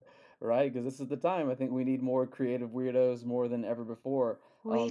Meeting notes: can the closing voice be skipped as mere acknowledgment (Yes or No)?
Yes